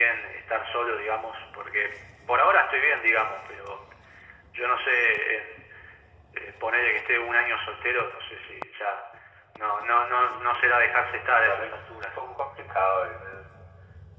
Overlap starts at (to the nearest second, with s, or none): 11 s